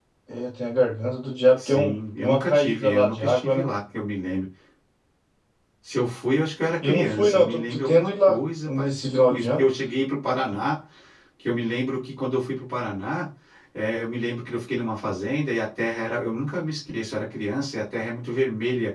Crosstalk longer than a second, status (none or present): present